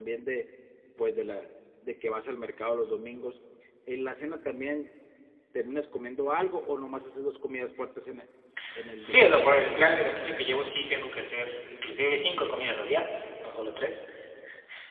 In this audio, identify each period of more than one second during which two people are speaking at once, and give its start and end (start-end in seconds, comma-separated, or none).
none